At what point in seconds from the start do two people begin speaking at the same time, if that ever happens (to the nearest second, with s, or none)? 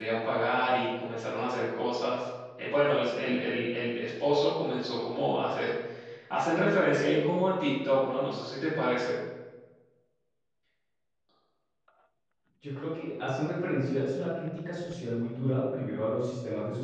none